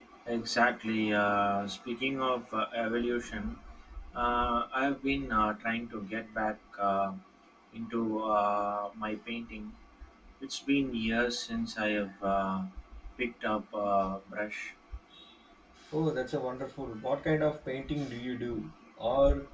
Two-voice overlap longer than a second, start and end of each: none

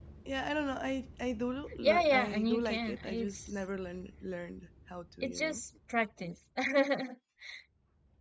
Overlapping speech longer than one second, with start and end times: 1.8-3.5

